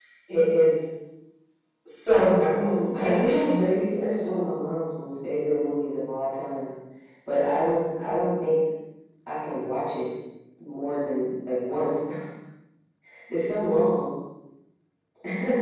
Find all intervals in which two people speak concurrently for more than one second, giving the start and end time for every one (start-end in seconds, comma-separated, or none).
2.3-4.7